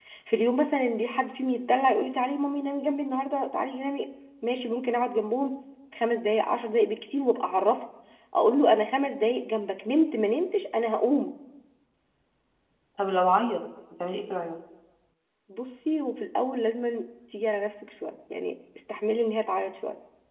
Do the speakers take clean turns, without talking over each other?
Yes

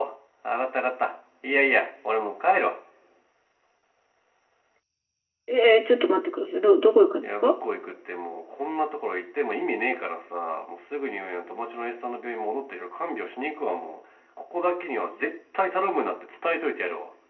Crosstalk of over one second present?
No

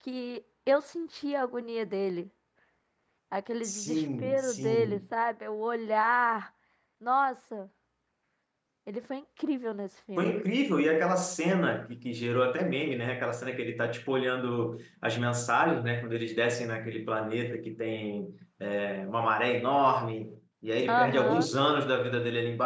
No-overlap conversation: No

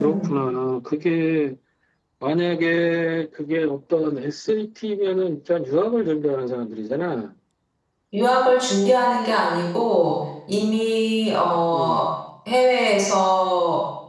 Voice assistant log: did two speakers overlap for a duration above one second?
No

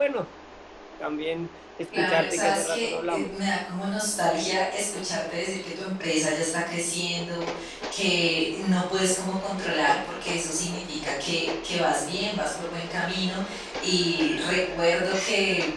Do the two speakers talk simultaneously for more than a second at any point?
Yes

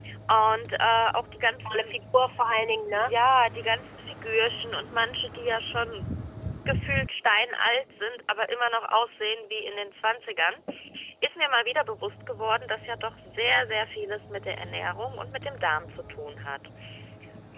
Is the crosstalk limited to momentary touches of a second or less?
Yes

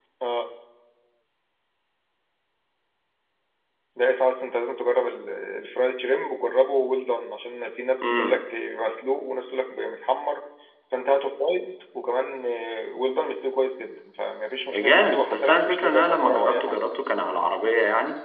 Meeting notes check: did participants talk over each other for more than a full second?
Yes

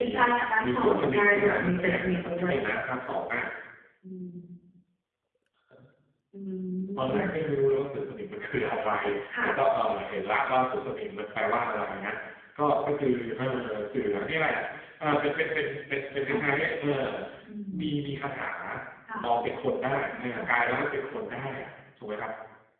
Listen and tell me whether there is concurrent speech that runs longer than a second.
Yes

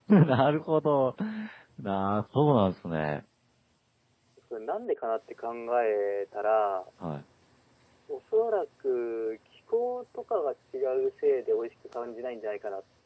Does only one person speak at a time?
Yes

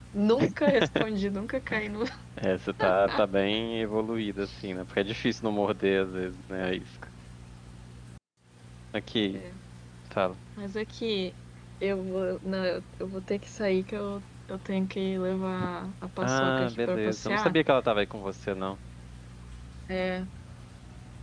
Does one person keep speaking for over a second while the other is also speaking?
Yes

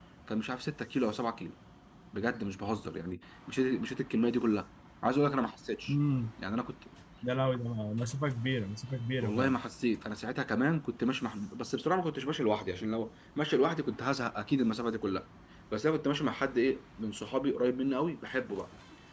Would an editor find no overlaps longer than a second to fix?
Yes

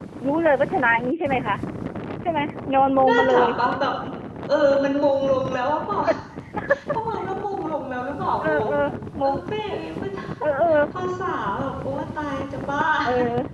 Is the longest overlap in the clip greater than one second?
No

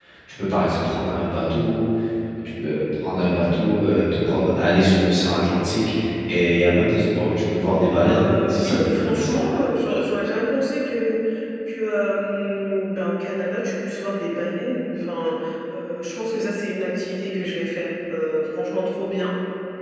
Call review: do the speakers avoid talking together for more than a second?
No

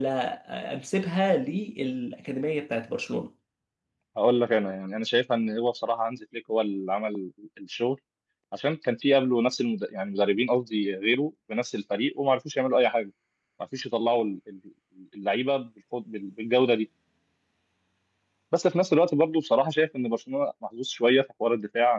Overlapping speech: No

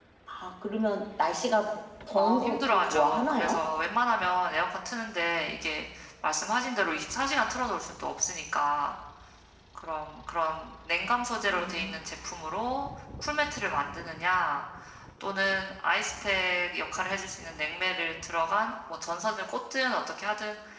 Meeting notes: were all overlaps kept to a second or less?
No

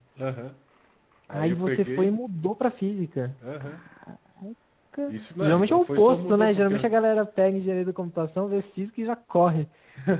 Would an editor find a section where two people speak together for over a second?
Yes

